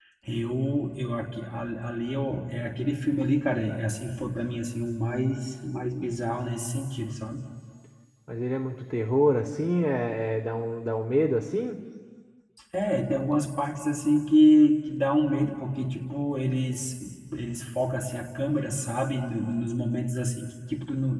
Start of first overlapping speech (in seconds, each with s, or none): none